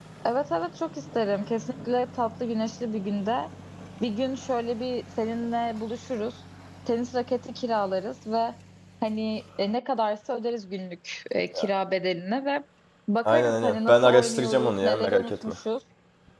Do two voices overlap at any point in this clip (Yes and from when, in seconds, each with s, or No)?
Yes, from 13.2 s